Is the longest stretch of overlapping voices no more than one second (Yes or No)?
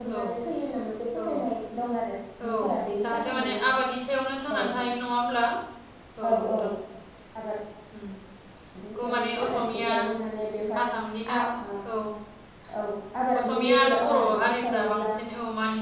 No